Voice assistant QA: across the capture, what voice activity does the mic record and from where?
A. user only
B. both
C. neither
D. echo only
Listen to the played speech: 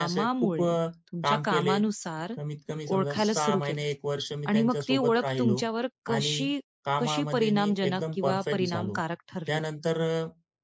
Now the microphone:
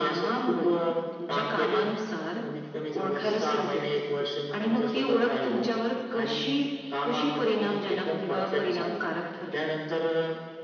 D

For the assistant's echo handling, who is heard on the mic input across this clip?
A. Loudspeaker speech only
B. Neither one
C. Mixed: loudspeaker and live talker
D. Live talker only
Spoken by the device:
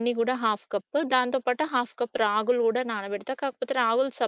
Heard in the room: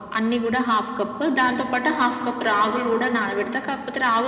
A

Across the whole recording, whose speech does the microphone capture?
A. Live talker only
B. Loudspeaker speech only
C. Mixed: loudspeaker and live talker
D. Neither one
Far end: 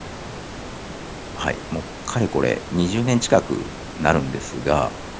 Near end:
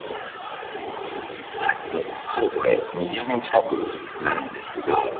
B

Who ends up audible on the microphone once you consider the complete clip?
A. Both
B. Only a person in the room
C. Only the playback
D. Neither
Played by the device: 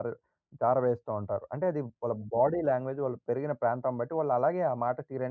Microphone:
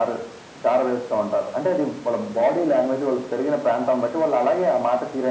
C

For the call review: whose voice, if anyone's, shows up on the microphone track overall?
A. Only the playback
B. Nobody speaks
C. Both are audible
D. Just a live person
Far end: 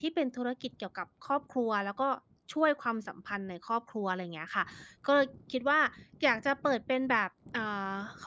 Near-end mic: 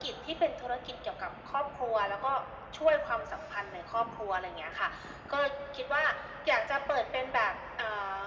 A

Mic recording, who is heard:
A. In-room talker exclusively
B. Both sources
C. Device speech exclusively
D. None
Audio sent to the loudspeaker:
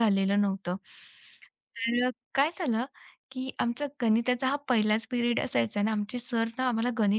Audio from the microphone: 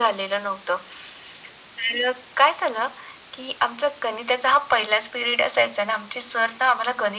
C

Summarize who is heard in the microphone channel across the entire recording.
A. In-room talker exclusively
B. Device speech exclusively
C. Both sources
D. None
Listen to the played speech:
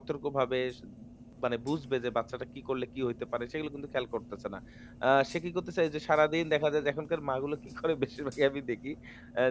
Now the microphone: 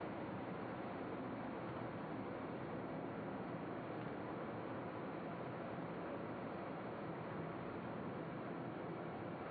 D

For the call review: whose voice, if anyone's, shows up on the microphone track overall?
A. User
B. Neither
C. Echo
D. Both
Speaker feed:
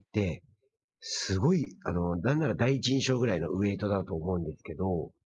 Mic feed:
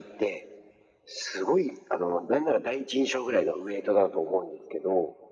C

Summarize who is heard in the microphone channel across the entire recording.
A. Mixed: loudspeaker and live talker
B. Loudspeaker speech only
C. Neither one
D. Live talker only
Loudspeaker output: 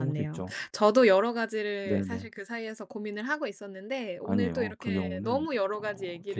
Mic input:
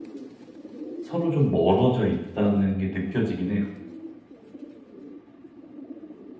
D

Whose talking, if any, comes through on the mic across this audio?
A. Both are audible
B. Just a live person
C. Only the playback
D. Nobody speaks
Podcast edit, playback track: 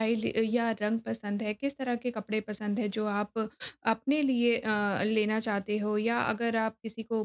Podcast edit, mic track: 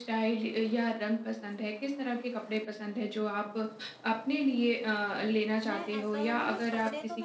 A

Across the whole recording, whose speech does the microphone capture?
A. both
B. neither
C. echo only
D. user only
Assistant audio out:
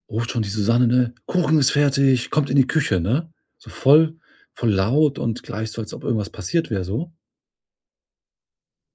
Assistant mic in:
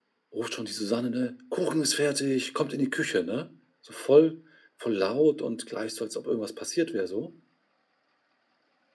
C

